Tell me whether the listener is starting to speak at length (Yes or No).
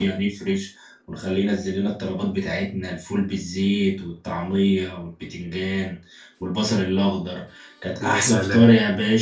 No